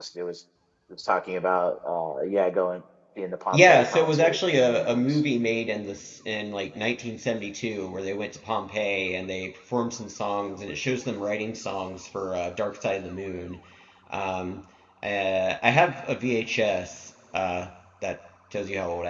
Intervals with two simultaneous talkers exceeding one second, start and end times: 3.5-5.2

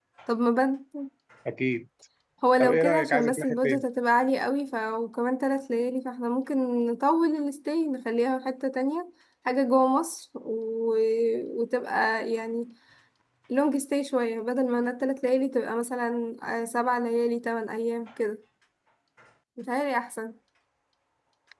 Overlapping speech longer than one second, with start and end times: 2.6-3.8

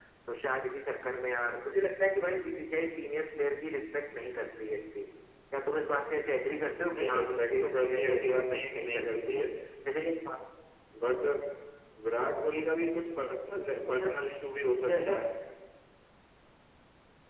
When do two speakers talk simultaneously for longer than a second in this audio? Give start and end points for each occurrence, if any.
7.0-9.4

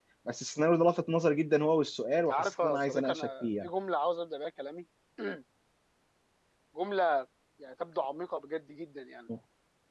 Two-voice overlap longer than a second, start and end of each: 2.3-3.7

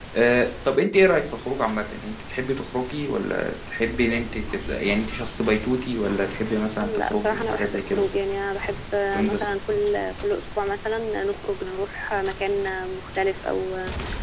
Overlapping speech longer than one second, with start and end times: 6.8-8.1

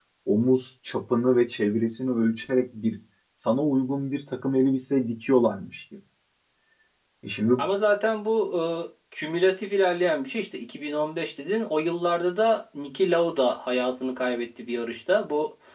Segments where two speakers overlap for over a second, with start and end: none

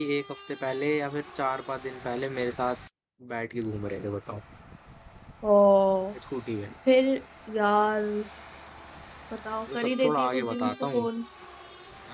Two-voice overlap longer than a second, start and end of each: 9.7-11.1

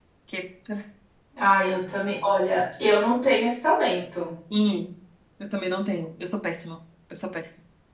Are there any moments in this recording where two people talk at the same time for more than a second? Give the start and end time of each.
none

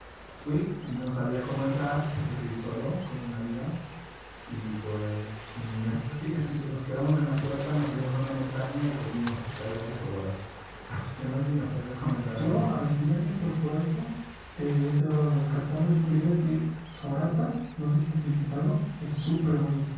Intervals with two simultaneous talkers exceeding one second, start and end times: none

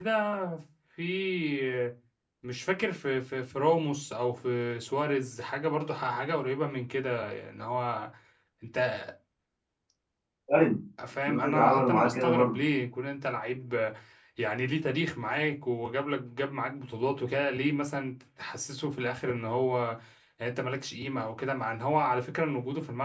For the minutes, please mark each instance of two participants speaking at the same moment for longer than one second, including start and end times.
11.3-12.6

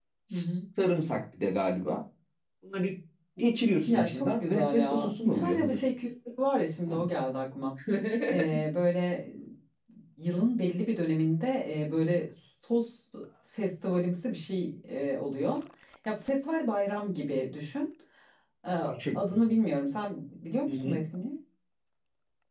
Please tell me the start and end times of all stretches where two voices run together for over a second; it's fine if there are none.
3.9-5.8

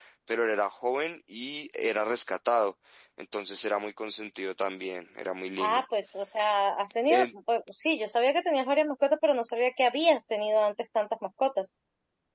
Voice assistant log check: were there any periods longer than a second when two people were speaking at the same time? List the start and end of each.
none

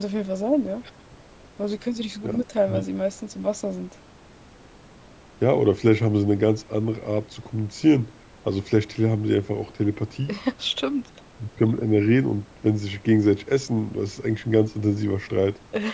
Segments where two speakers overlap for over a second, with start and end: none

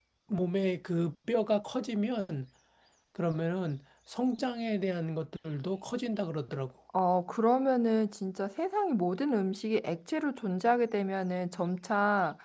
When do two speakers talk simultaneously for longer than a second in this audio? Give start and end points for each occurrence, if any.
none

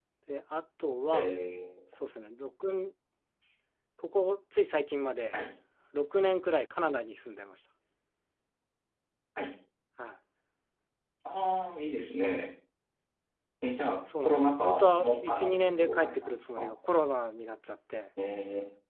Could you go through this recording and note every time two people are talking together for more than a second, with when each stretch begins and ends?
14.2-16.7

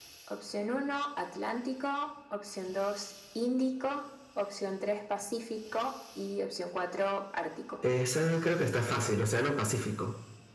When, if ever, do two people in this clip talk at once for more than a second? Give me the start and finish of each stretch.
none

